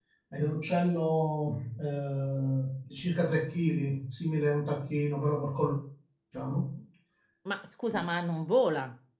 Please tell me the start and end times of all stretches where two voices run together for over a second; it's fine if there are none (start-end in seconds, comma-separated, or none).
none